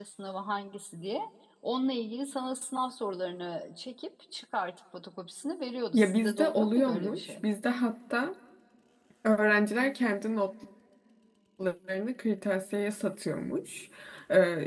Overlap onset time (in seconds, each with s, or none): 5.9 s